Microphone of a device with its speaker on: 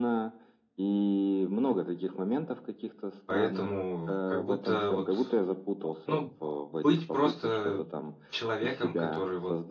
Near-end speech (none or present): present